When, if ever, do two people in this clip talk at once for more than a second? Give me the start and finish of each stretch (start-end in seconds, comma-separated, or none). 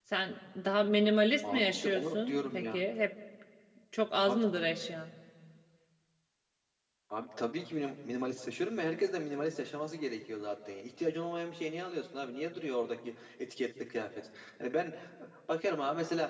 1.4-2.8